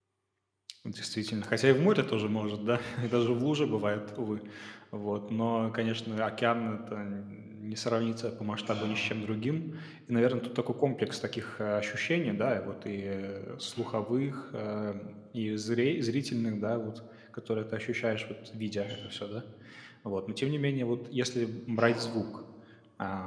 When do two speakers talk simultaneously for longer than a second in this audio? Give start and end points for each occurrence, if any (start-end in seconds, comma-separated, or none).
none